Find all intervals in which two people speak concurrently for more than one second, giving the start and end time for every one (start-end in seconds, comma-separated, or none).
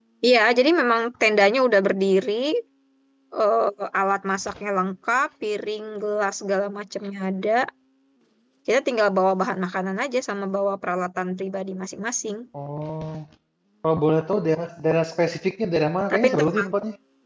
none